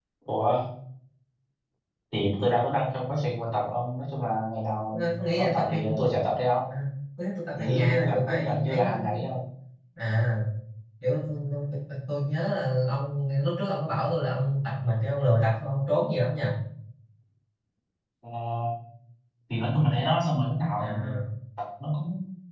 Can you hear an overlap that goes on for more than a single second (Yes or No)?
Yes